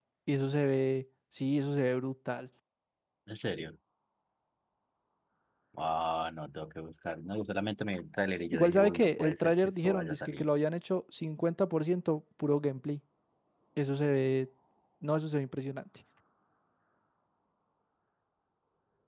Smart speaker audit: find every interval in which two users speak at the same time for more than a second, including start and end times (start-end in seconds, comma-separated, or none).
8.5-10.4